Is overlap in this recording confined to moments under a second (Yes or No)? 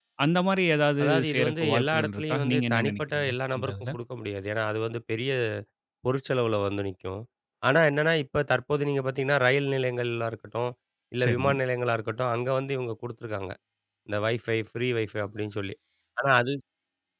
No